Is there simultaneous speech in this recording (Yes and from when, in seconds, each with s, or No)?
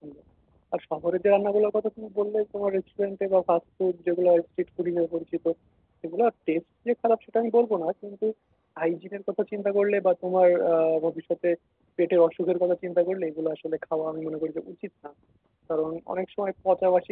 No